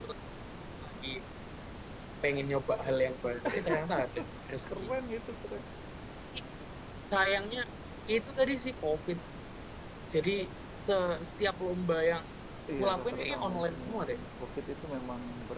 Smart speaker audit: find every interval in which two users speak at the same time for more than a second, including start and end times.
12.8-14.2

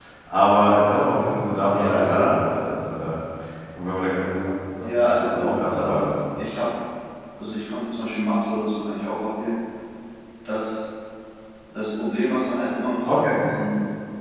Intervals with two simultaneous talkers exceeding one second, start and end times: 4.8-6.1

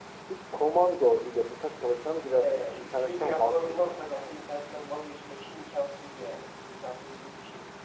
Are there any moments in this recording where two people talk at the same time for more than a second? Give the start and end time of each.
2.4-4.0

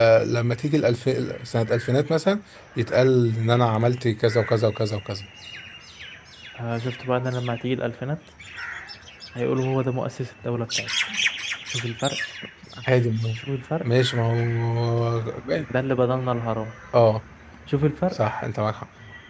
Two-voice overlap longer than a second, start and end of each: none

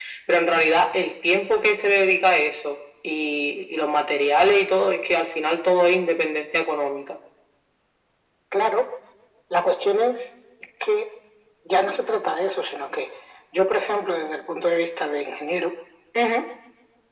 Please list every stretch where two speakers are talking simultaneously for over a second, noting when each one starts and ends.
none

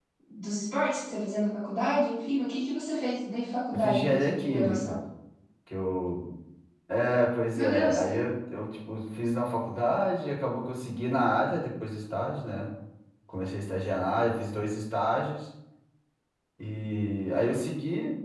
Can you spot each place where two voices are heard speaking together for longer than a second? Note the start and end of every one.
3.7-5.0

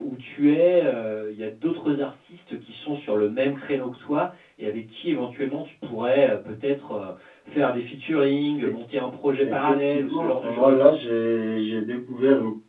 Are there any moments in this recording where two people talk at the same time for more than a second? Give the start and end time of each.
9.4-10.9

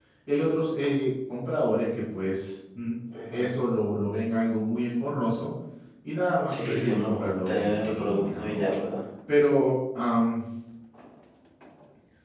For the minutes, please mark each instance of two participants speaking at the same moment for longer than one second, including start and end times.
6.5-8.6

